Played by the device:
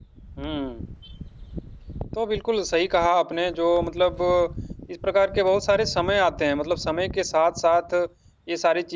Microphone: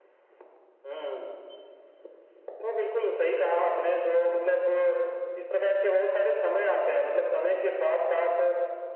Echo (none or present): present